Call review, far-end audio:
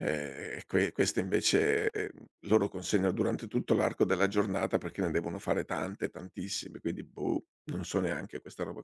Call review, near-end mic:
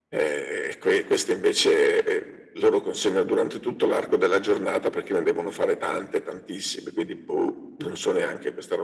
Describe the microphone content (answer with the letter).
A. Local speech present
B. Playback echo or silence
B